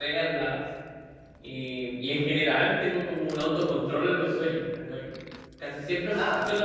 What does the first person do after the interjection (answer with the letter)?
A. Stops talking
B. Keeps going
B